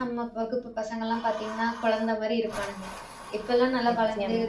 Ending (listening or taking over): listening